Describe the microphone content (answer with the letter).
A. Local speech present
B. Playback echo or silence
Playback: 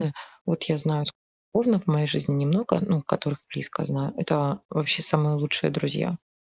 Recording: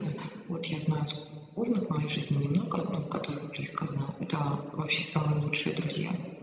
B